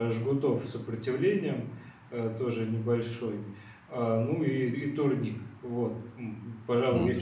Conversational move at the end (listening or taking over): taking over